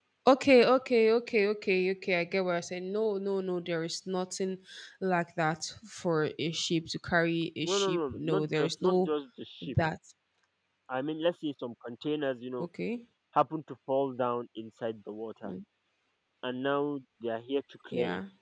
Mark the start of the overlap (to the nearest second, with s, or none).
8 s